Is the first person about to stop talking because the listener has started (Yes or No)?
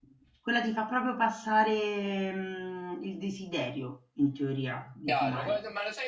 Yes